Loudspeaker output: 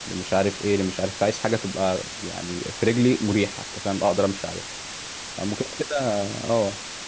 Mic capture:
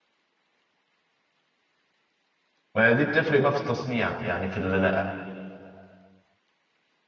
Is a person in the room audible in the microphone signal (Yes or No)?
Yes